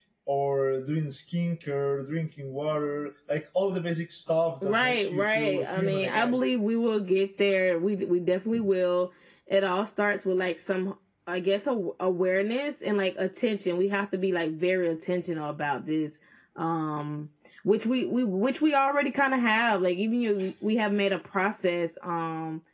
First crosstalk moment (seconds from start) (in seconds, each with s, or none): 4.6 s